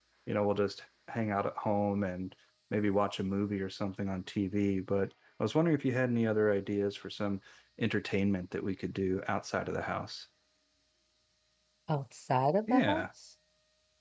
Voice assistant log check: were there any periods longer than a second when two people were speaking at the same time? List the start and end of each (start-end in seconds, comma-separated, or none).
none